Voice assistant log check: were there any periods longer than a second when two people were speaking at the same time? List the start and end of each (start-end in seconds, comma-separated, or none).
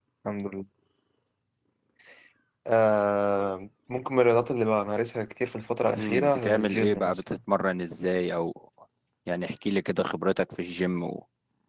6.0-7.4